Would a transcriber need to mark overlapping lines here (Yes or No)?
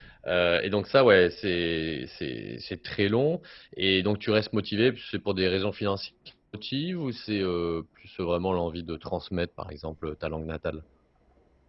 No